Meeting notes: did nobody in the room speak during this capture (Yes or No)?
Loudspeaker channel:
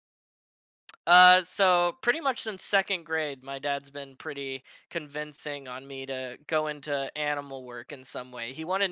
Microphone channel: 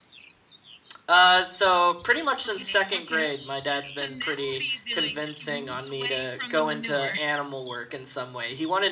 No